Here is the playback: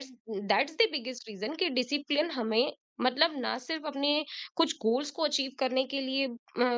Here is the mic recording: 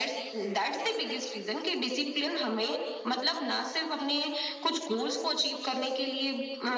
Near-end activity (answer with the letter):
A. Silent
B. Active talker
A